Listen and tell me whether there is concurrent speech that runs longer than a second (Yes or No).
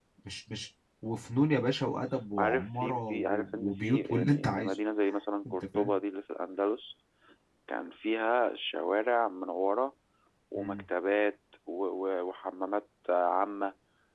Yes